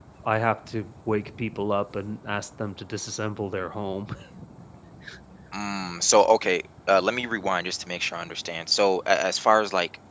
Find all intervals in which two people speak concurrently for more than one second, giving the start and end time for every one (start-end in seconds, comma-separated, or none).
none